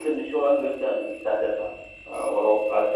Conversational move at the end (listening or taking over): listening